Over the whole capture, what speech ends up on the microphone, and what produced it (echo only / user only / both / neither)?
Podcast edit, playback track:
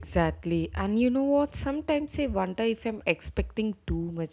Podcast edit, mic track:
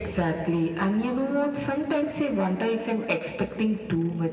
echo only